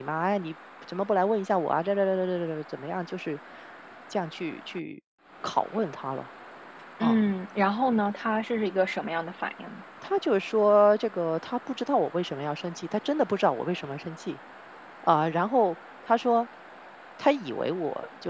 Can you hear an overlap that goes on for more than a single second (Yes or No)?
No